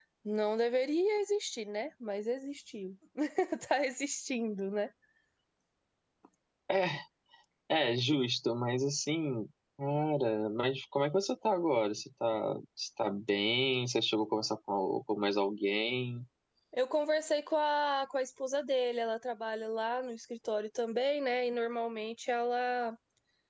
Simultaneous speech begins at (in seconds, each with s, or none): none